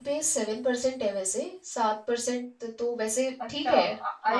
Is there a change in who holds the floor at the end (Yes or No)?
Yes